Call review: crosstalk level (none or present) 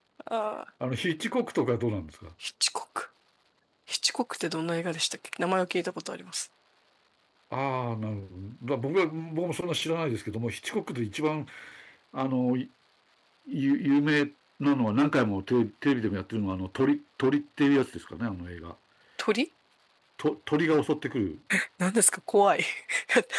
none